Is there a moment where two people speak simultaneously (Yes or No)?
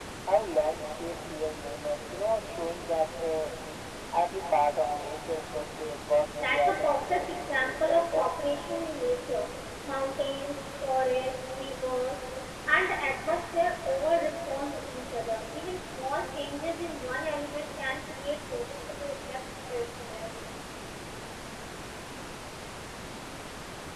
Yes